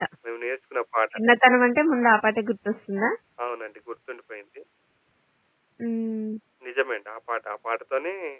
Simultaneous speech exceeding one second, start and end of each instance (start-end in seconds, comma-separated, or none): none